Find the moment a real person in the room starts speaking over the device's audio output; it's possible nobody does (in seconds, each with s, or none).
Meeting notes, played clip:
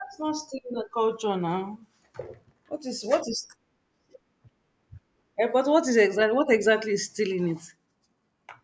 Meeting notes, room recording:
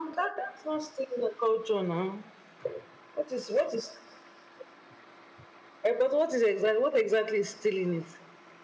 none